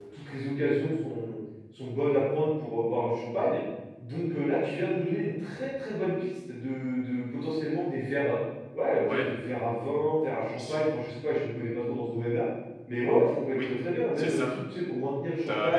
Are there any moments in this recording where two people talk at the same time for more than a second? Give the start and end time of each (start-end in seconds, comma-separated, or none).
none